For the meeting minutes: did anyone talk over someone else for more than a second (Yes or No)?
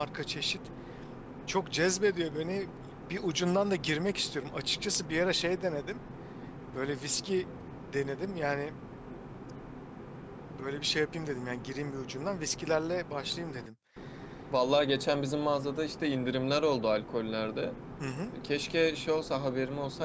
No